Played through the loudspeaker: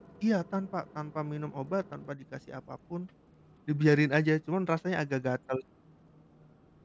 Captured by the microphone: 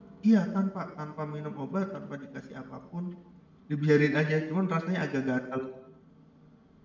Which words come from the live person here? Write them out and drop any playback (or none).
none